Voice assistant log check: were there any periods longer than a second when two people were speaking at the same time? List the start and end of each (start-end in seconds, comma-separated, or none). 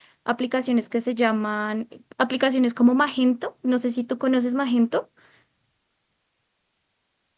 none